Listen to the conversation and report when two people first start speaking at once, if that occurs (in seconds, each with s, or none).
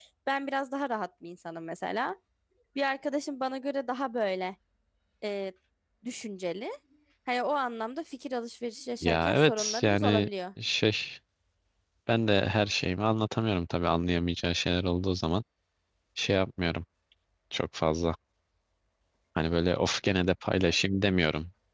9.0 s